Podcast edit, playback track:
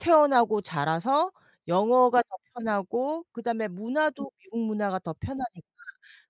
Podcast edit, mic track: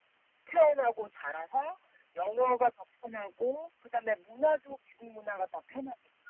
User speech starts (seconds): none

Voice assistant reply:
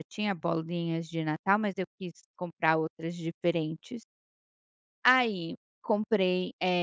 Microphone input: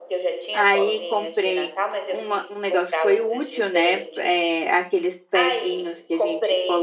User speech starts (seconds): 0.5 s

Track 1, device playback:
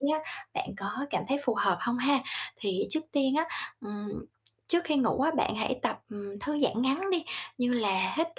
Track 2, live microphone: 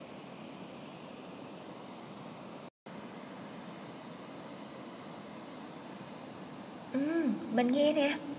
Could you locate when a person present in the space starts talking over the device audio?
6.9 s

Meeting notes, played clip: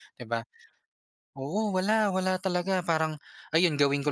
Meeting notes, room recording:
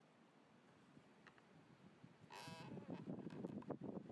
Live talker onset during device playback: none

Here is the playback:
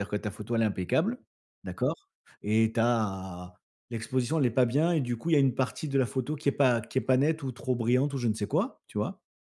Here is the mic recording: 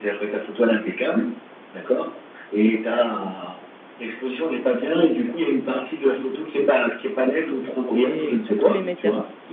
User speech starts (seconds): 8.0 s

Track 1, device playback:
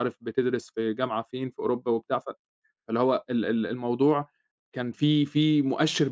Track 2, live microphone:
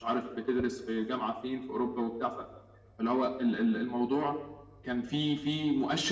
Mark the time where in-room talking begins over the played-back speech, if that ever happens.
none

